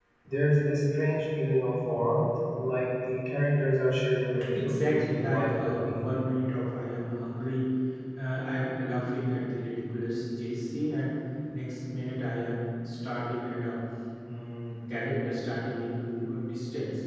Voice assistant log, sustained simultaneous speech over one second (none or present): present